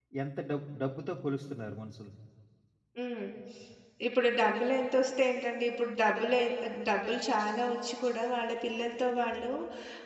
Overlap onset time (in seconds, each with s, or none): none